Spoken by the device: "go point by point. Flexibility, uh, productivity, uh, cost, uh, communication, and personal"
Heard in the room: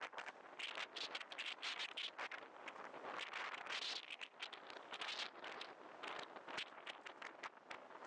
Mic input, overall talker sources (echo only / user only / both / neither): neither